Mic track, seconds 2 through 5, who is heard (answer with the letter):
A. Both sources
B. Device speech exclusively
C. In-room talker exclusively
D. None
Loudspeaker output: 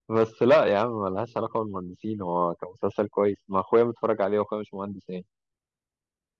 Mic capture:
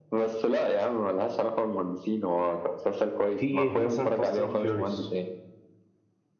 A